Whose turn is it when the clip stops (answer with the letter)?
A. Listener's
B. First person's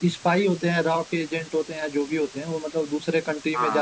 B